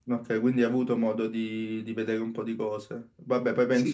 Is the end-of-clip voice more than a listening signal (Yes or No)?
No